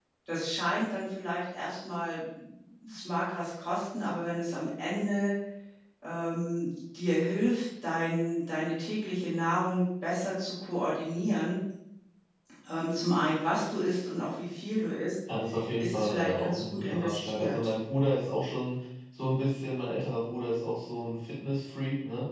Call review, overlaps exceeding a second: present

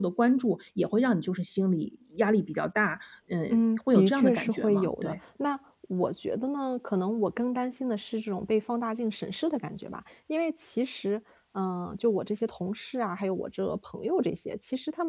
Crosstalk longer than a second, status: present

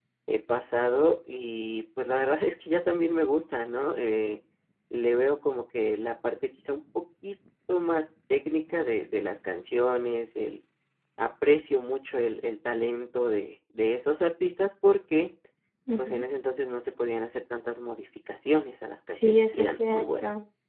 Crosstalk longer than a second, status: present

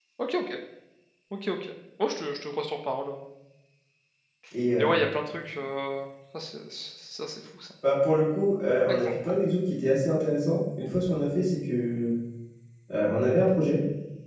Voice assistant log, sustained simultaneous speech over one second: none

